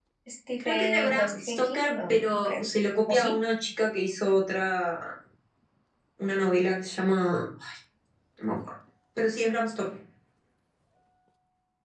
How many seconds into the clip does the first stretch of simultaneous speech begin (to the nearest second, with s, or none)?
1 s